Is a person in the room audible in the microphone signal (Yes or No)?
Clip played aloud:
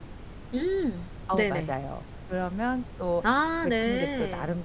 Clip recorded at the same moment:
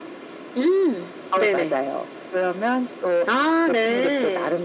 No